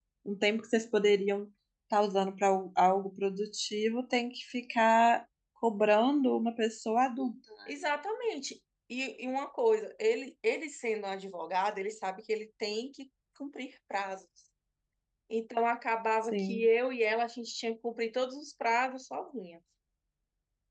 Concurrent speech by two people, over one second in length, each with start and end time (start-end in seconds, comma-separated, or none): none